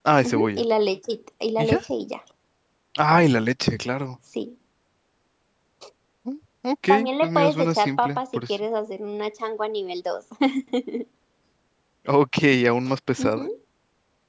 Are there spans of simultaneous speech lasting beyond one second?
Yes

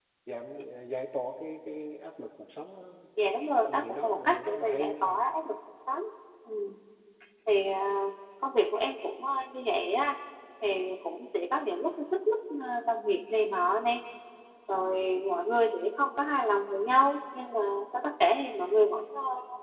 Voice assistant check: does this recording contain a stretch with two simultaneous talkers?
Yes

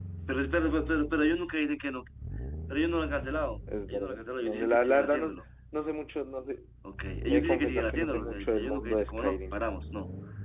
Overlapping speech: Yes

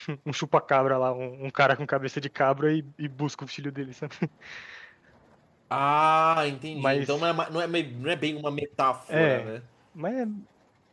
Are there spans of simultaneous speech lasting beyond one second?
No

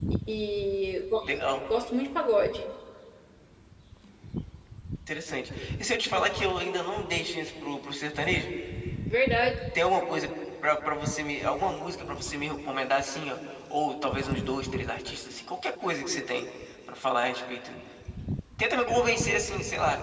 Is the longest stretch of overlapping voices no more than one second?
Yes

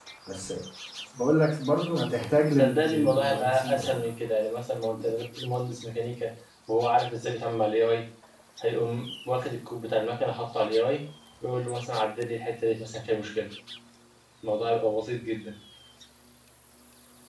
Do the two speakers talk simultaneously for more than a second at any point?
Yes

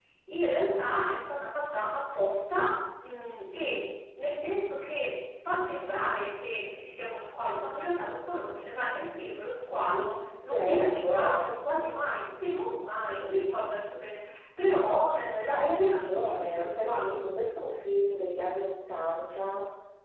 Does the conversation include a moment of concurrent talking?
Yes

